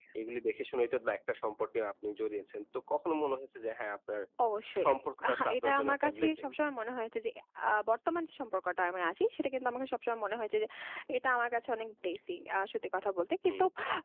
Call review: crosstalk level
present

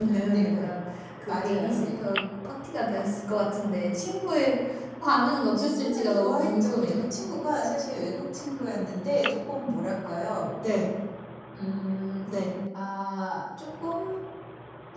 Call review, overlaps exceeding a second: present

